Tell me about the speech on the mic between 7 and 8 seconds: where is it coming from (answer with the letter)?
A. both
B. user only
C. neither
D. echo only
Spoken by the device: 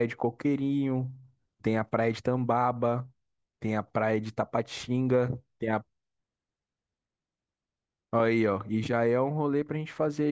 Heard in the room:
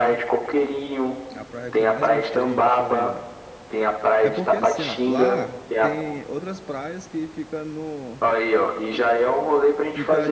B